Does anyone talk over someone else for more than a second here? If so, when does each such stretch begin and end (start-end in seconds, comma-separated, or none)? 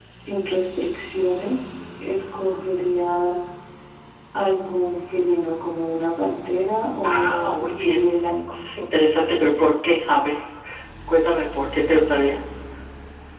7.0-8.5